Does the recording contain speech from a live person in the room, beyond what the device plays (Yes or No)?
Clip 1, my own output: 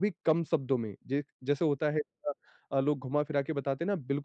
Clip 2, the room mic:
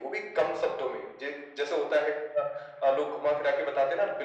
No